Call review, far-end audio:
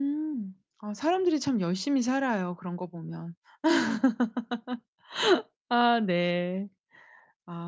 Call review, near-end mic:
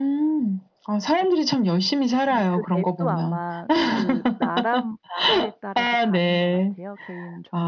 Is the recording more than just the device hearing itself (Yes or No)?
Yes